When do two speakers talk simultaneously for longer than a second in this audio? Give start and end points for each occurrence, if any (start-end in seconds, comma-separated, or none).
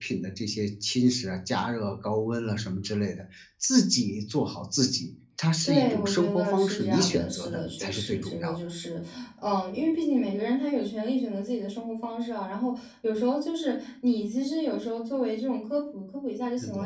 5.7-8.6